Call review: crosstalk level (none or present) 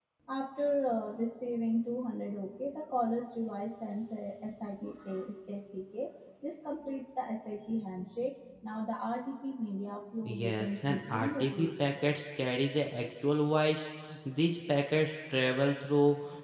present